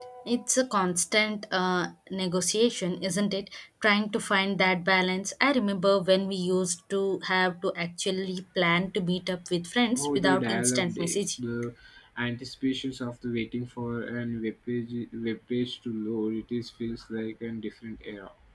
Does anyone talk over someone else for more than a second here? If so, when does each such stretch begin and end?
10.0-11.2

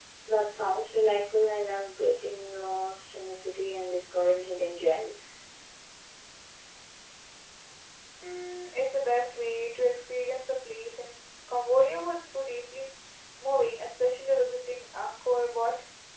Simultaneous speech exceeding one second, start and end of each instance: none

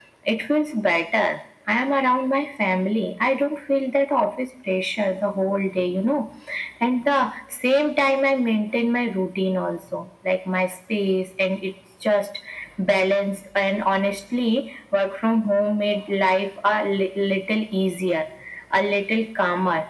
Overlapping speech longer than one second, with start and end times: none

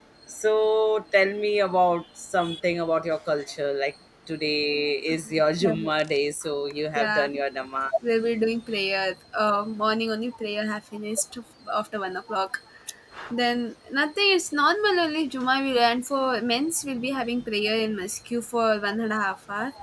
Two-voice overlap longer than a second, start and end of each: none

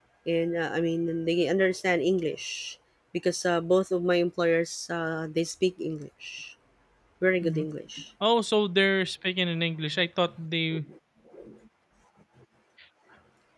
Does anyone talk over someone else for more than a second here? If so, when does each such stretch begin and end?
none

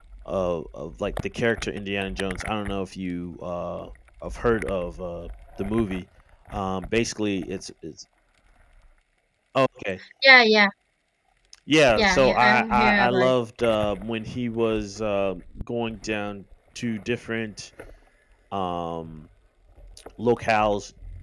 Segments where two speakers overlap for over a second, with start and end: 12.0-13.3

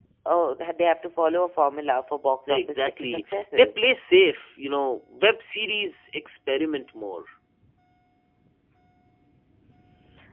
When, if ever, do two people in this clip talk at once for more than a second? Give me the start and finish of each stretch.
2.5-3.7

